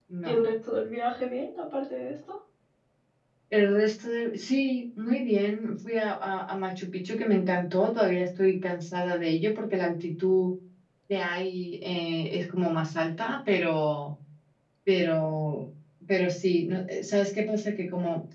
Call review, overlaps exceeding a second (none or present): none